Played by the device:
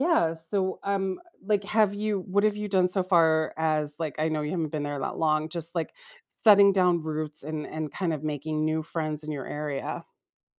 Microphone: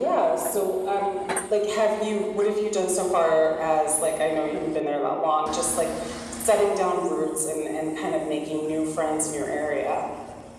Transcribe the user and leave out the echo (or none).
none